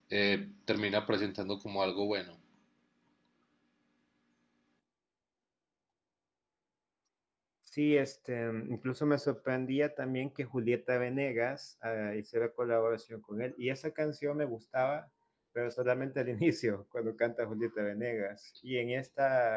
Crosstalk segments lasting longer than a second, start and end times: none

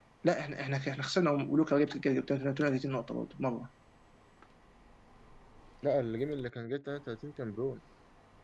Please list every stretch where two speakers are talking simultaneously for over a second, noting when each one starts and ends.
none

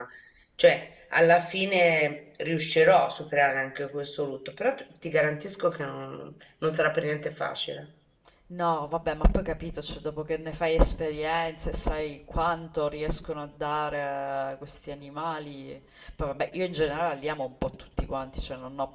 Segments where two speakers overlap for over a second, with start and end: none

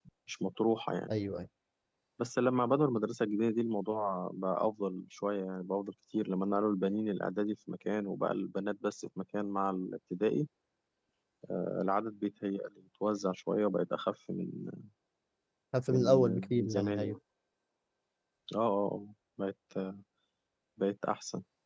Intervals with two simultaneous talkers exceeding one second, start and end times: 15.9-17.2

